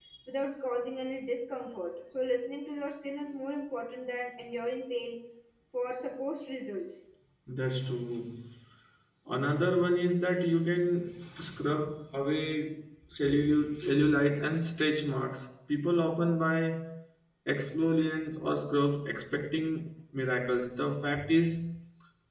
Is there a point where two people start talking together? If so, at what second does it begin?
none

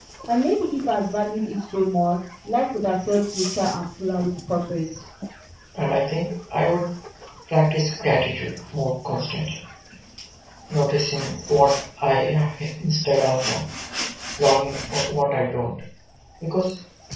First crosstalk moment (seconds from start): none

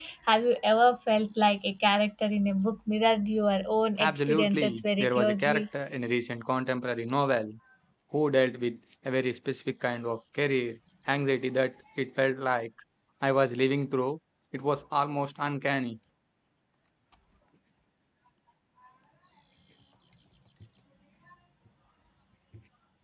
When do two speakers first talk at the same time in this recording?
4.0 s

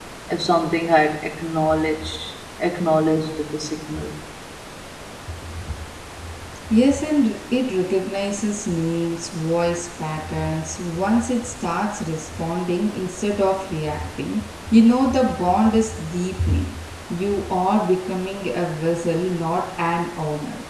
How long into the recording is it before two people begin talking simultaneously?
none

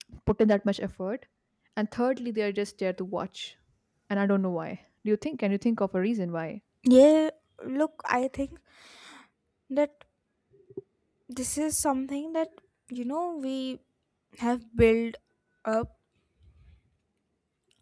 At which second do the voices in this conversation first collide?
none

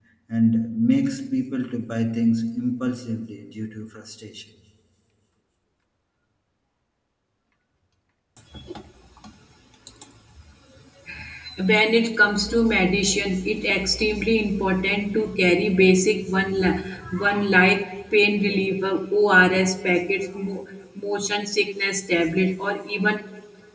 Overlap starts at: none

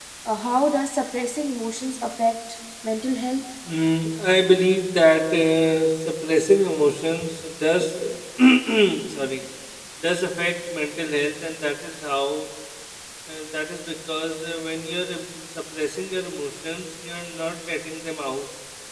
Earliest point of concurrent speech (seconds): none

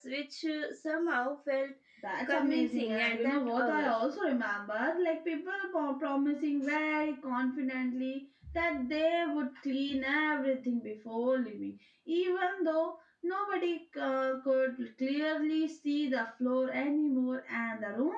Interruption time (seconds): 2.3 s

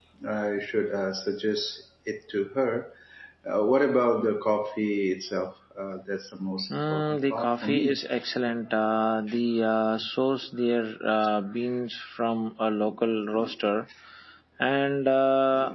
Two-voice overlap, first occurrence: 6.7 s

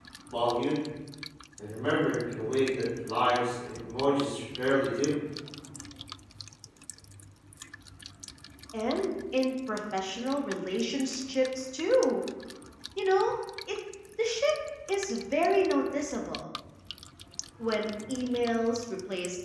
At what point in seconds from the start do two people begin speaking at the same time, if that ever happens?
none

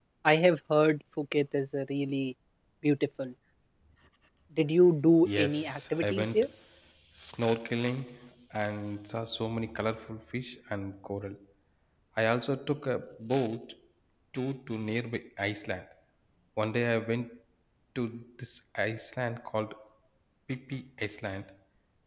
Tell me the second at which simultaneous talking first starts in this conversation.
5.2 s

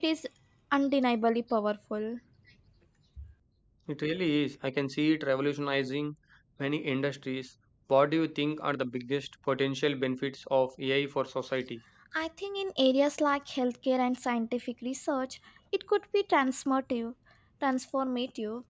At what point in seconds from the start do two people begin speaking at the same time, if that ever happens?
none

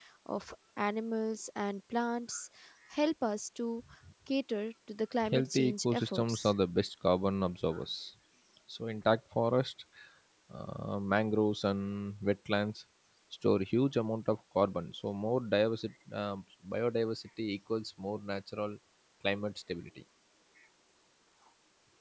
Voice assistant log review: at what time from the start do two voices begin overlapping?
5.2 s

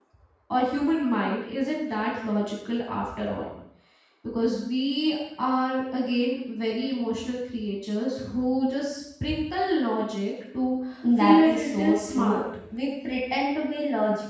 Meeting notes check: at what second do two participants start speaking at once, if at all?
11.2 s

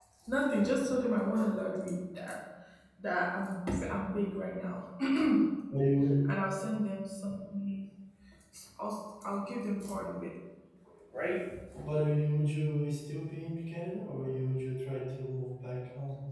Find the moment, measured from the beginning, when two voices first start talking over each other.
none

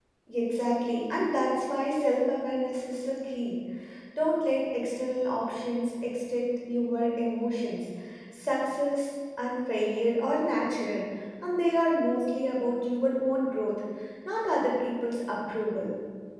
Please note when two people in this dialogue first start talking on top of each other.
none

